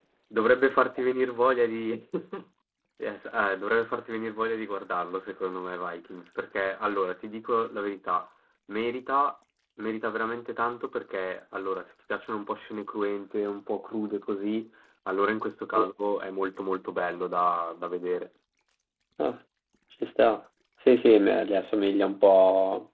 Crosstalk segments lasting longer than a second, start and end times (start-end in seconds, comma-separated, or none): none